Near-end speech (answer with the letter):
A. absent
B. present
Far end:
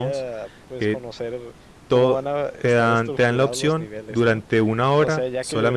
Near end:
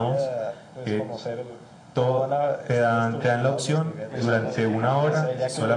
B